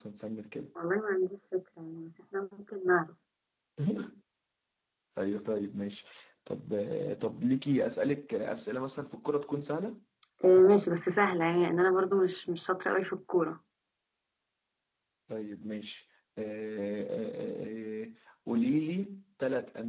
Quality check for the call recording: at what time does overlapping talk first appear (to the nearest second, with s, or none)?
none